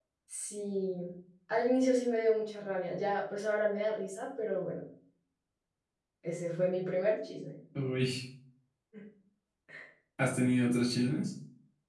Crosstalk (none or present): none